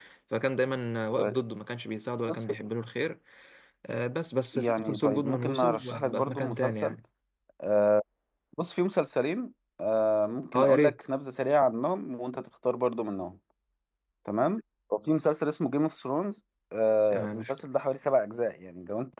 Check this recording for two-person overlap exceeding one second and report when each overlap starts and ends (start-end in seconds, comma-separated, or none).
4.5-7.0